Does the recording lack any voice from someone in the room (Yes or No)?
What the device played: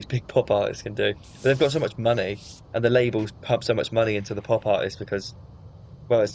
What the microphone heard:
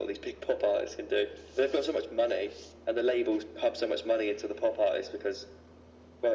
Yes